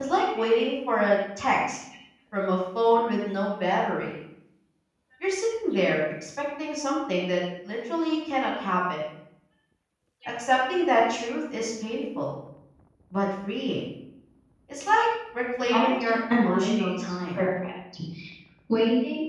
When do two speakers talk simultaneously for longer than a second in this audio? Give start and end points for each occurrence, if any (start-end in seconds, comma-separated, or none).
15.6-17.4